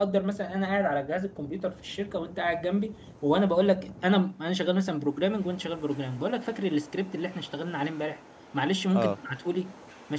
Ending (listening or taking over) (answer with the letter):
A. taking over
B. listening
B